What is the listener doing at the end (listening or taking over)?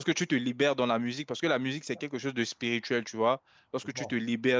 listening